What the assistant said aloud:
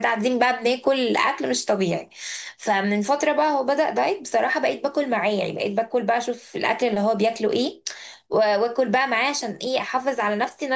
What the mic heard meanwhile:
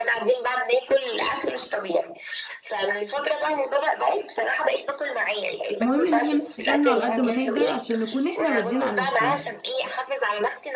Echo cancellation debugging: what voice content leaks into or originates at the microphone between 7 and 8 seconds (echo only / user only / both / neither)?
both